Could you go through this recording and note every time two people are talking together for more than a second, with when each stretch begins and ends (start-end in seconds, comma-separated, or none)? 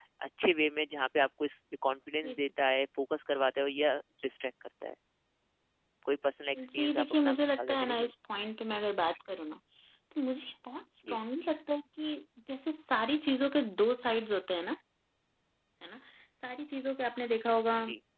6.6-8.1